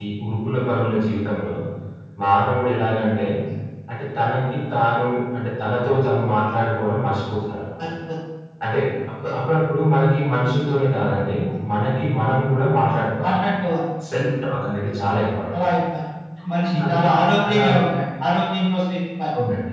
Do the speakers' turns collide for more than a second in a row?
No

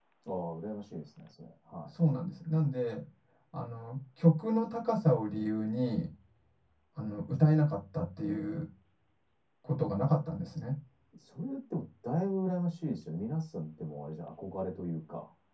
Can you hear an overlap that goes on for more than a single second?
No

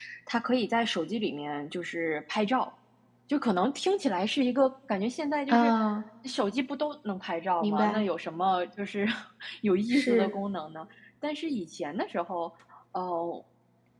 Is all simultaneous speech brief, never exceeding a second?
Yes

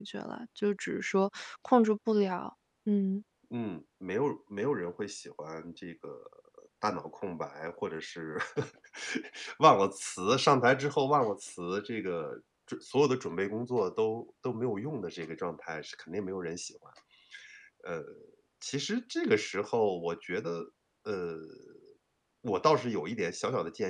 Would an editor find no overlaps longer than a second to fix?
Yes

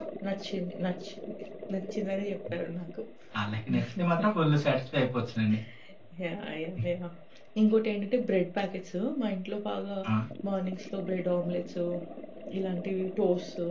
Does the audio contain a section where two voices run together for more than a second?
No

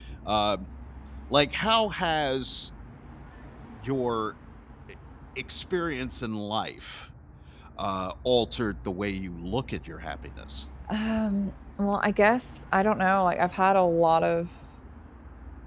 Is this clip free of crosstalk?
Yes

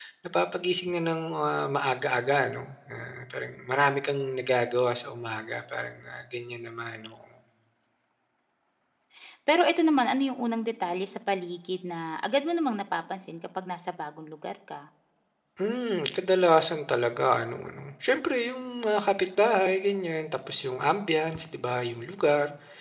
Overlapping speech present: No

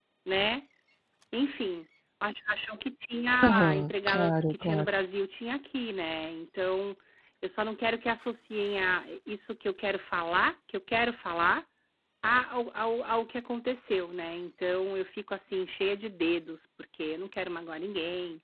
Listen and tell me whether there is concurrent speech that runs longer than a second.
Yes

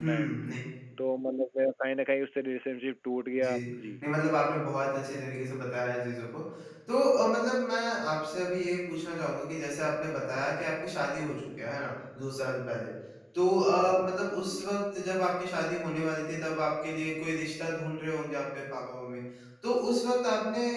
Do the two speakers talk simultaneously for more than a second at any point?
No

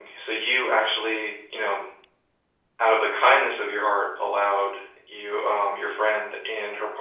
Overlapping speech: No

